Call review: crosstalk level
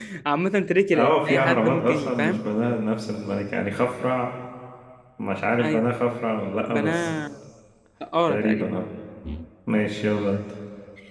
present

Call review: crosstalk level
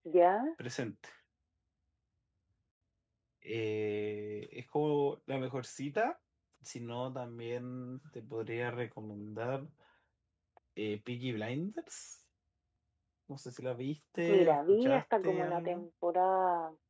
present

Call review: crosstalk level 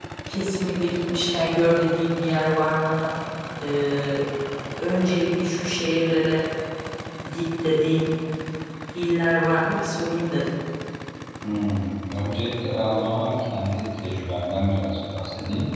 none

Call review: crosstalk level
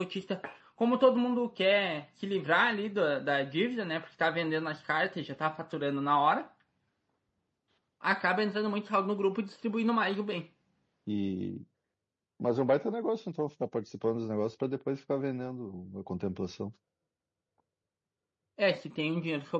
none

